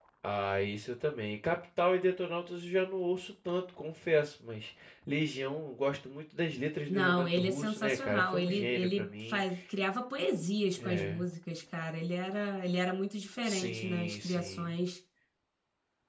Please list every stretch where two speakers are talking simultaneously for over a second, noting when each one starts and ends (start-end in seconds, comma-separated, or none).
6.9-9.4, 13.4-14.8